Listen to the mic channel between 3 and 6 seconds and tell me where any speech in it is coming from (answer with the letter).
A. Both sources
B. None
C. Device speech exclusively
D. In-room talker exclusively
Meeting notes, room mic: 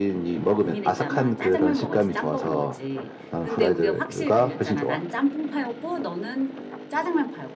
A